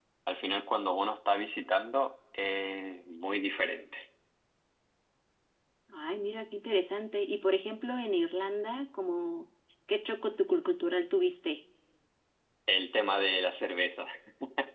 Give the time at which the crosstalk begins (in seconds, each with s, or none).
none